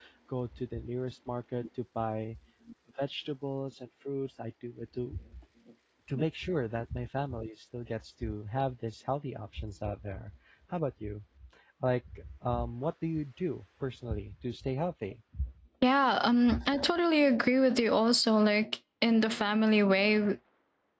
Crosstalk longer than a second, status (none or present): none